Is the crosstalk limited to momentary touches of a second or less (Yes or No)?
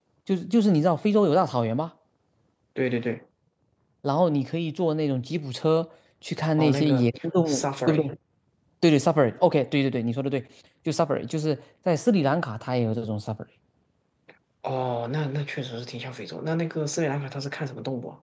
No